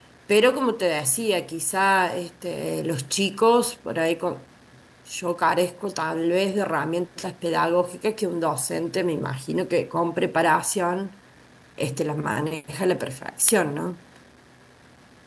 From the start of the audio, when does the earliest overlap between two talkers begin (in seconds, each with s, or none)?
none